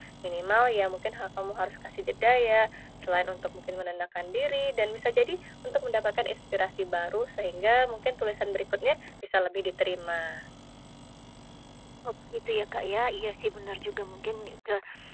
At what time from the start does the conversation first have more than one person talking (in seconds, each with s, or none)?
none